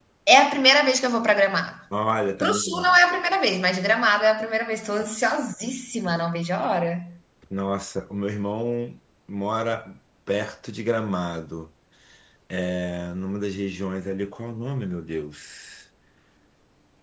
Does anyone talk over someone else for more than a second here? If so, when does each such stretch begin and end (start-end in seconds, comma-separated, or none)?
none